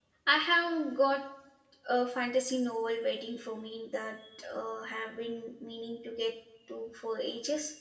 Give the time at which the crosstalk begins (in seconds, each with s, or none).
none